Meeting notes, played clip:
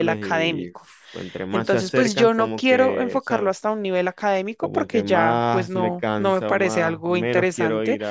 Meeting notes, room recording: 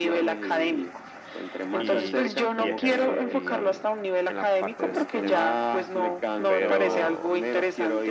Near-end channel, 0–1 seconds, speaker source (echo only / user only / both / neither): echo only